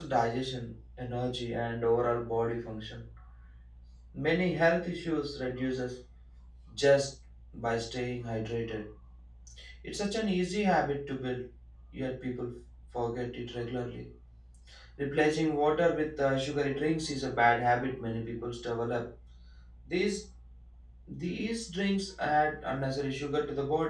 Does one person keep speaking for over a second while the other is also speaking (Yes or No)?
No